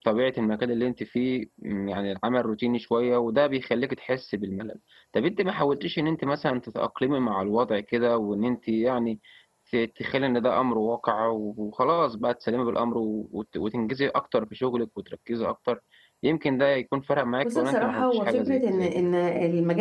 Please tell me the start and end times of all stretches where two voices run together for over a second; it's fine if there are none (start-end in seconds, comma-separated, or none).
17.4-19.1